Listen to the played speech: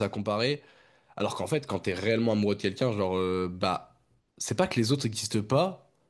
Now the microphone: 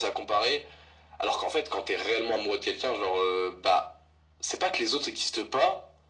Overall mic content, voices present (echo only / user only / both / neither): echo only